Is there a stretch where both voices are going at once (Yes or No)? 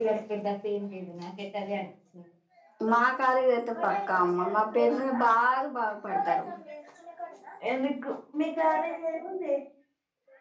No